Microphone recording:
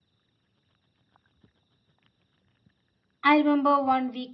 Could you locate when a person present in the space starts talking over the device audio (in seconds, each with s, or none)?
3.2 s